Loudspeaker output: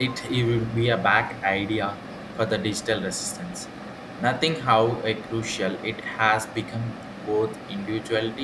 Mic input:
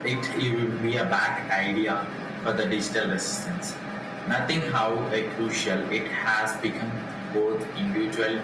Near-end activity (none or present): none